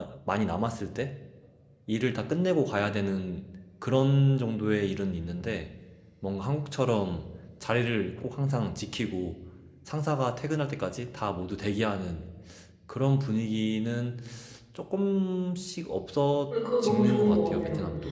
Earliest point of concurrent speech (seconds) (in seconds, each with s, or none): 16.5 s